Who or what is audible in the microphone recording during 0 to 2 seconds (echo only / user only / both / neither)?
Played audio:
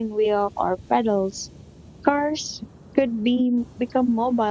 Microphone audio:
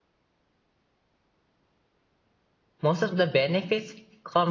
neither